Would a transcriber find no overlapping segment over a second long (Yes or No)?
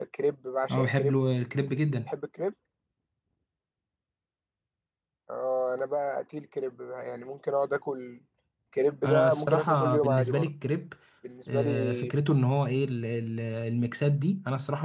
No